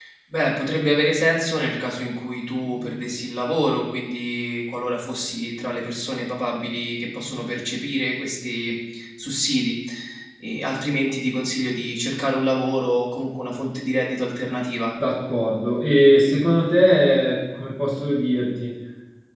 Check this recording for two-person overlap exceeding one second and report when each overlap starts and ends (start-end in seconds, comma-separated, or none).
none